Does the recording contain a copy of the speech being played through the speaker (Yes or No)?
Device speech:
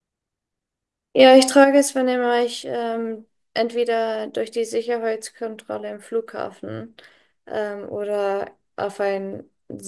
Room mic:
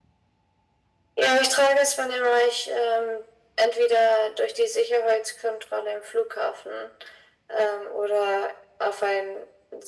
Yes